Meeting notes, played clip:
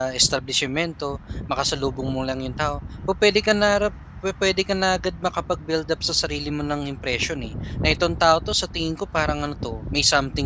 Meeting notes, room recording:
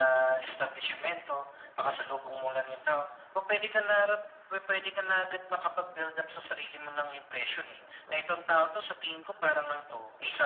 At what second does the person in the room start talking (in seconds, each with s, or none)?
none